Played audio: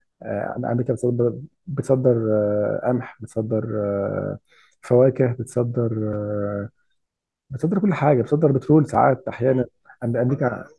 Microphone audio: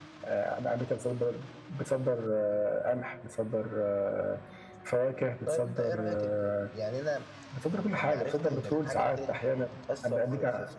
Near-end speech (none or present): present